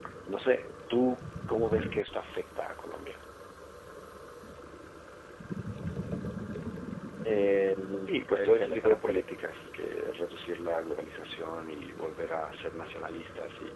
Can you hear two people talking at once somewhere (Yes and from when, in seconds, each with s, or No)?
Yes, from 8.0 s